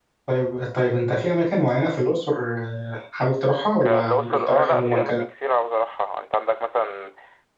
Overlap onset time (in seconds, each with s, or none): 3.8 s